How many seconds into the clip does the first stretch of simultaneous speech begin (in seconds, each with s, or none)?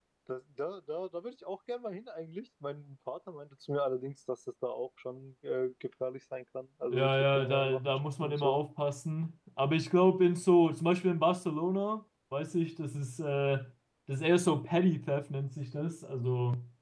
6.9 s